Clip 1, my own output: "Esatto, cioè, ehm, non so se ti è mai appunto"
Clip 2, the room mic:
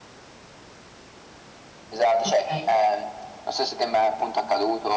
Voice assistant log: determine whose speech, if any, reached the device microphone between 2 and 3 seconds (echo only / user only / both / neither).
both